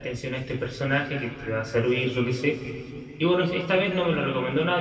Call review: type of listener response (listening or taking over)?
listening